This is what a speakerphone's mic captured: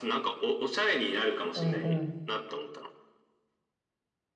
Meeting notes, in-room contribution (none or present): present